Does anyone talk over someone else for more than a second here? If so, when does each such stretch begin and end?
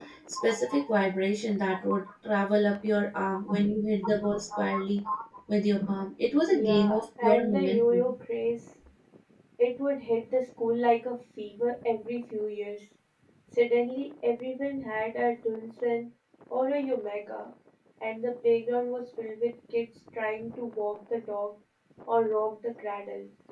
6.5-8.0

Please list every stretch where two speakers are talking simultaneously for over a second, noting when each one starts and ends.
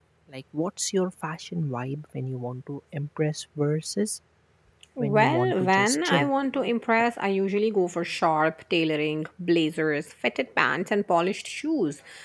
5.0-6.3

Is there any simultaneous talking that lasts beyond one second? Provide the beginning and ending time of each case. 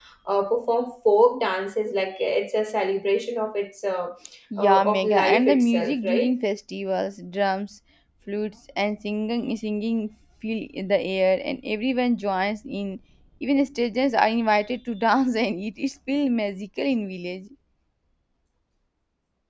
4.6-6.3

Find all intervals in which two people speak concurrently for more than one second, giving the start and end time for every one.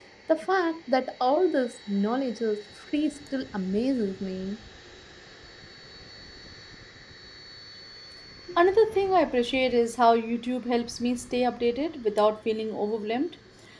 none

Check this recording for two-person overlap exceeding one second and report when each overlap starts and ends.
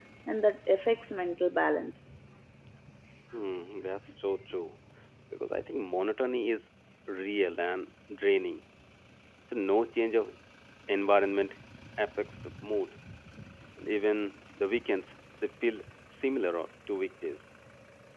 none

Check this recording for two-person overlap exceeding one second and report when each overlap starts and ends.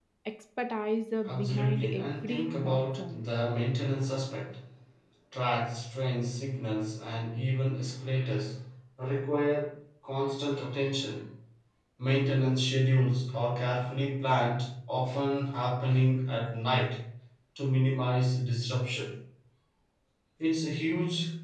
1.2-3.2

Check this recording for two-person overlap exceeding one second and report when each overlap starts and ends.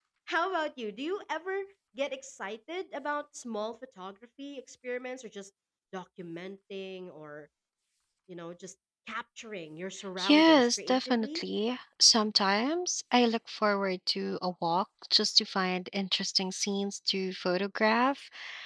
10.2-11.4

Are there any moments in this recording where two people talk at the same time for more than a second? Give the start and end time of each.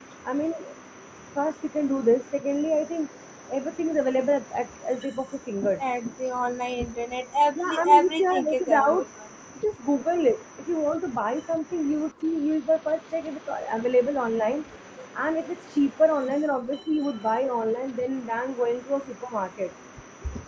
7.5-9.0

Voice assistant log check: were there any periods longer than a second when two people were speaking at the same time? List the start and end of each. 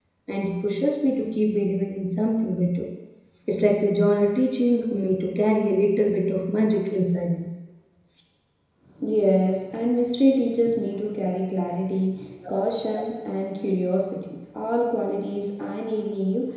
none

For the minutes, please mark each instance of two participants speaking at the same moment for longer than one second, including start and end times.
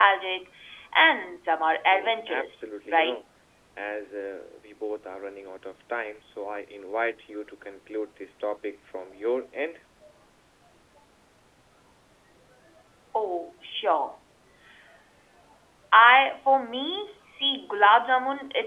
1.9-3.2

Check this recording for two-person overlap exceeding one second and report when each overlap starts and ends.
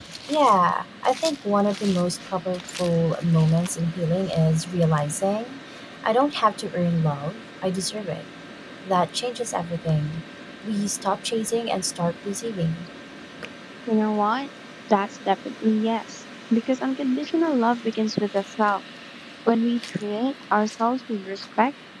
none

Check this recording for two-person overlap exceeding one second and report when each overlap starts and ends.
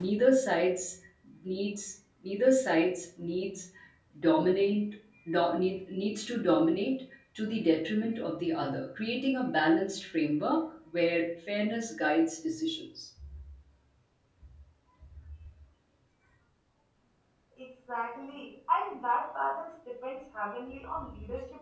none

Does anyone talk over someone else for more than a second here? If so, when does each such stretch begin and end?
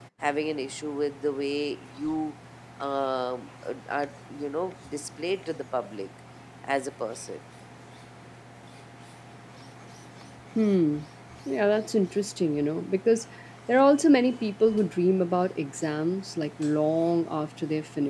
none

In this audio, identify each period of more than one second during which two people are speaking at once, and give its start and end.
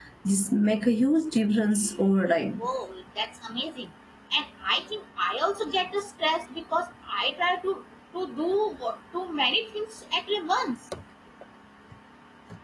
none

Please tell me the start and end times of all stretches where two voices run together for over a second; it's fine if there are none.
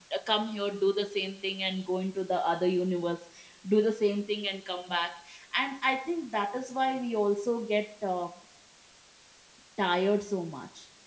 none

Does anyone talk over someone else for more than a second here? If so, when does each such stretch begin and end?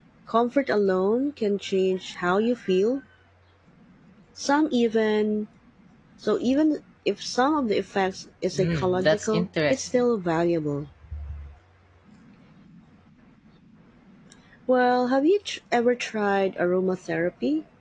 8.6-10.0

